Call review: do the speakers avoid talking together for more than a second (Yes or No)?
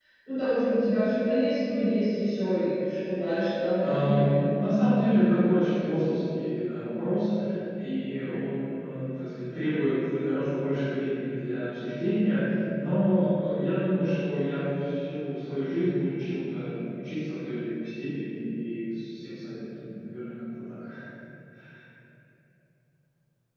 Yes